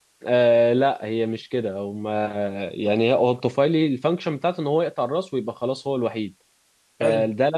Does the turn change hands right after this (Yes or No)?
No